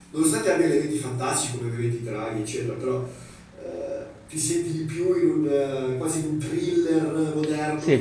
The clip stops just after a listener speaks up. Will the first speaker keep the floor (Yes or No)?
No